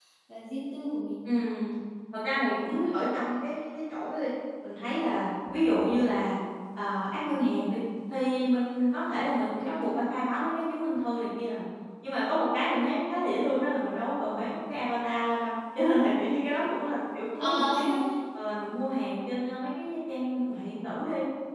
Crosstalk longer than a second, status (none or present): none